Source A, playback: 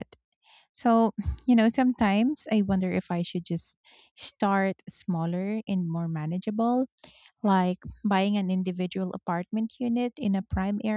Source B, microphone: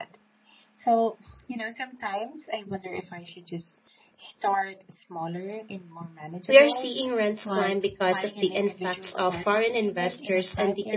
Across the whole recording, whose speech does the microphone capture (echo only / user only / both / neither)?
both